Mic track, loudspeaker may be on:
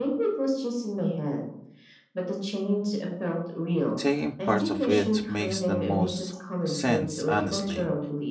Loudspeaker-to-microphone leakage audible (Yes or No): Yes